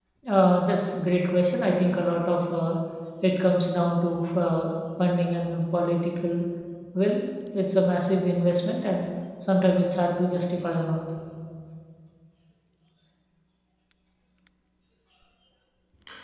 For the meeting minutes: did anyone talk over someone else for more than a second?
No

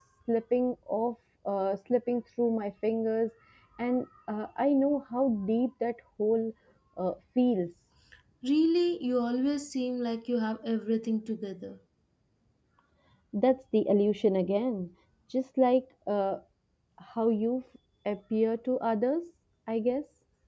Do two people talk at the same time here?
No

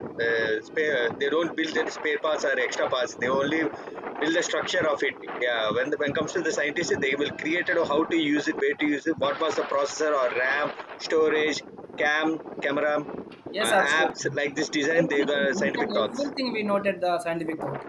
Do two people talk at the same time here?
Yes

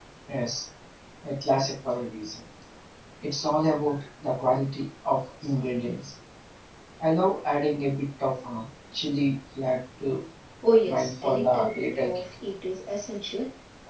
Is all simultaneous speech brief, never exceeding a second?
No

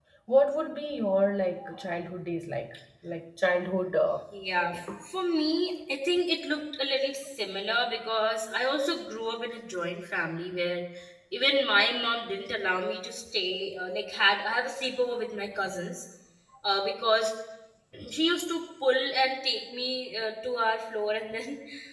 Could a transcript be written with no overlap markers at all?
Yes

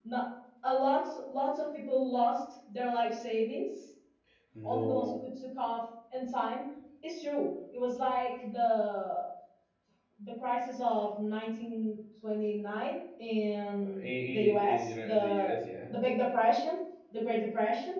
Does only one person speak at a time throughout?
No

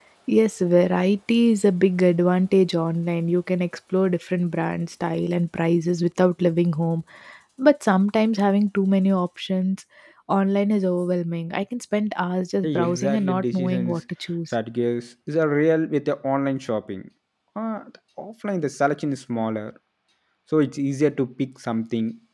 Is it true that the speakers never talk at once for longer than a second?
No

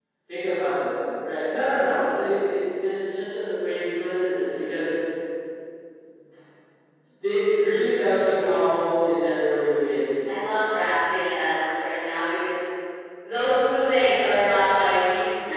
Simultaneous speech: No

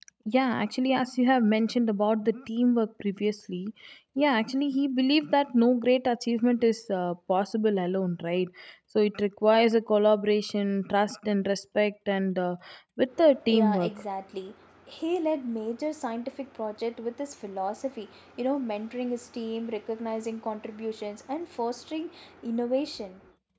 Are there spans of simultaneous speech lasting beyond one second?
No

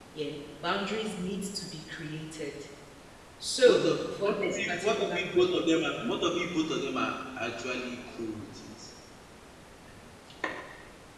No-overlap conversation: No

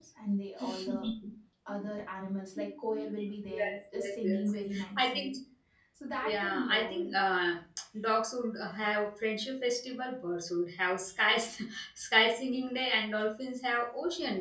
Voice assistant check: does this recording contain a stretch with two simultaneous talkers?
Yes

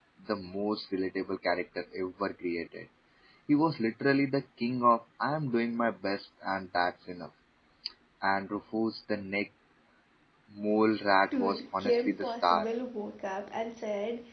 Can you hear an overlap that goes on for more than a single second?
Yes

